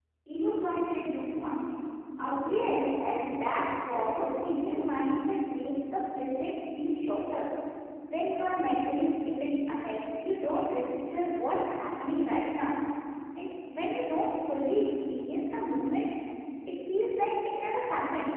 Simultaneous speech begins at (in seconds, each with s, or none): 2.4 s